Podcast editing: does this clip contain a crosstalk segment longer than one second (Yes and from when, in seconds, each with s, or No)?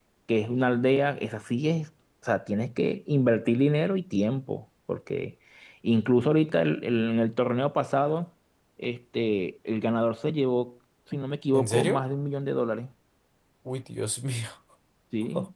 No